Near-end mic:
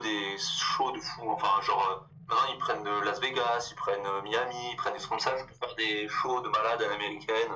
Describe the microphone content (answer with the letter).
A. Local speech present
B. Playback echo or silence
B